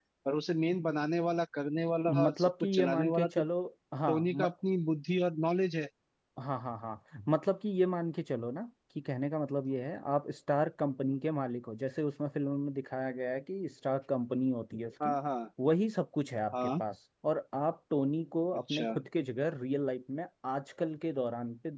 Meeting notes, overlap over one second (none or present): present